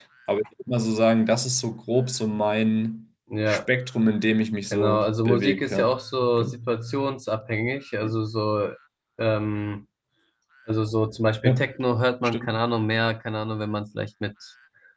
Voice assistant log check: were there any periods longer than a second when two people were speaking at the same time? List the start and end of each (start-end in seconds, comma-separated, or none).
4.7-5.9